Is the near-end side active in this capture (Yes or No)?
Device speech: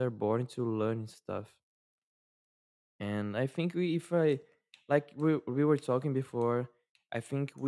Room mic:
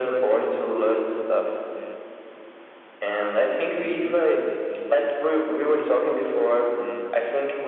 Yes